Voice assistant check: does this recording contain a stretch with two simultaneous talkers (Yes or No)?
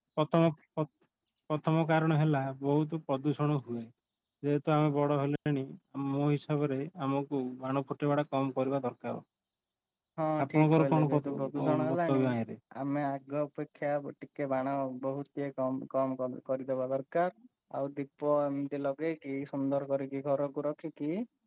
Yes